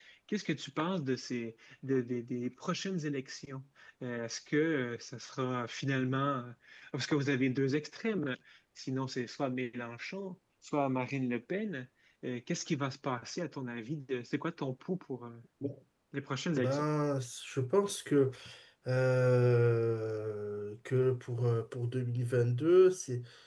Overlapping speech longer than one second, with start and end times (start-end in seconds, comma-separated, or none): none